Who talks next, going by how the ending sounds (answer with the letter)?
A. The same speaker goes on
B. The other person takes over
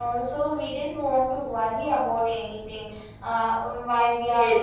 B